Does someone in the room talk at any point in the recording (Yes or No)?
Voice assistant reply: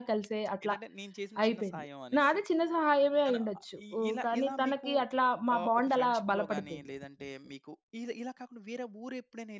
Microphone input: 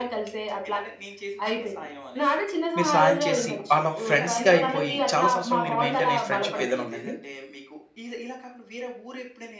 Yes